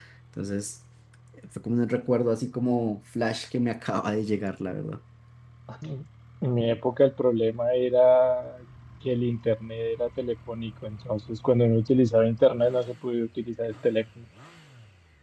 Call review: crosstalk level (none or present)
none